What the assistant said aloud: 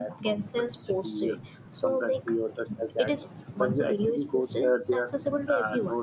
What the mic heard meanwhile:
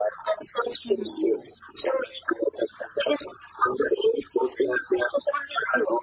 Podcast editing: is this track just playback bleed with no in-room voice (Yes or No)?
No